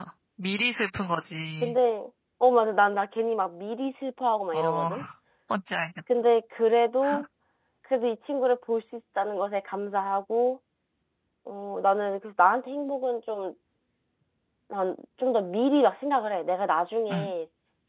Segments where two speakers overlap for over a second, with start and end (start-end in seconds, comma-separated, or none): none